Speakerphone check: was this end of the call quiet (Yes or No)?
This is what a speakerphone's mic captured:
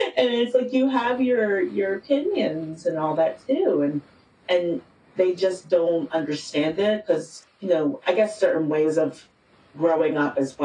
Yes